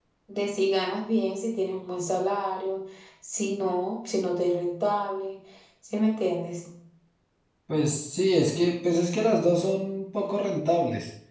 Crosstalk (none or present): none